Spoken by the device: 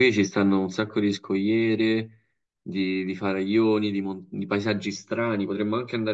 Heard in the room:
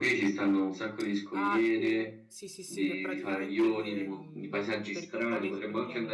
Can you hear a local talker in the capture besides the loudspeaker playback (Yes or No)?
Yes